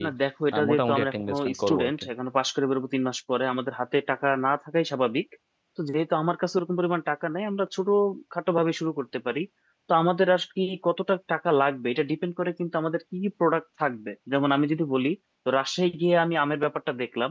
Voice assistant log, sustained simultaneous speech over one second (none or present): present